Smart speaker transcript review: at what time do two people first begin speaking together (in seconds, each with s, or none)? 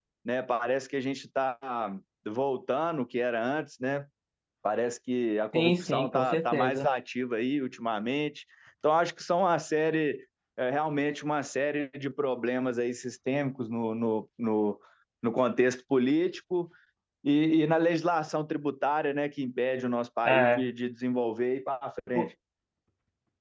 5.5 s